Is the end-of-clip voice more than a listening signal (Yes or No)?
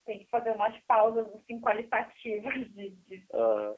No